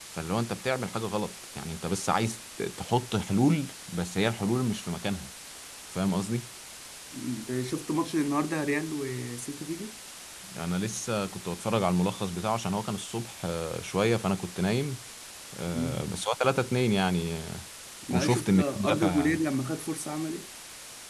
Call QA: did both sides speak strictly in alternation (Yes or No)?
No